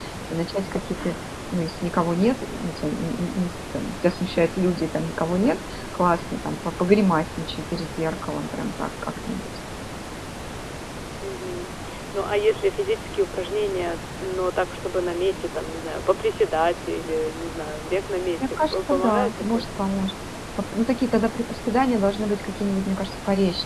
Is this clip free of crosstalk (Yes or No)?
No